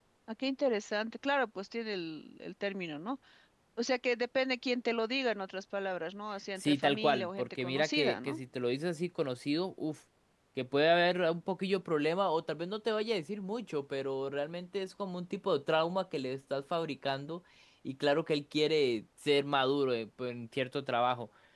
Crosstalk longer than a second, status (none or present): present